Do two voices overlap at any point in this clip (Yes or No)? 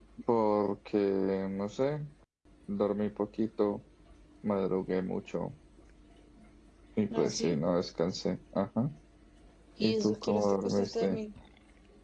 Yes